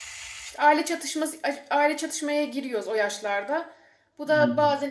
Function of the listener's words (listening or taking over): listening